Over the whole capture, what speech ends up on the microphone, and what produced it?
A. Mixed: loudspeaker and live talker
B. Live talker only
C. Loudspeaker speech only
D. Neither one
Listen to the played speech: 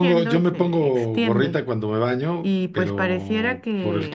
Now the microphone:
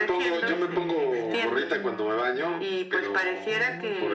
A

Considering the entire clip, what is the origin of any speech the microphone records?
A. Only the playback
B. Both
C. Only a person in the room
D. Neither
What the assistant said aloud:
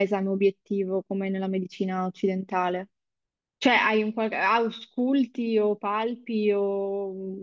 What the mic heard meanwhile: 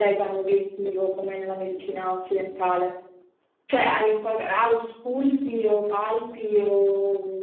A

